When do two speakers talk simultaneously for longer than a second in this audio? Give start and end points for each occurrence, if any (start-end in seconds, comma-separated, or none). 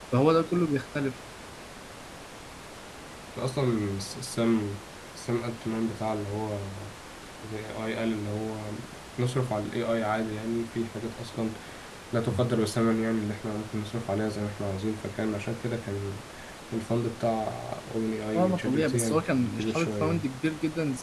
18.4-20.3